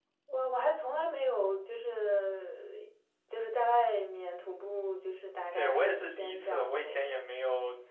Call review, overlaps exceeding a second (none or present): present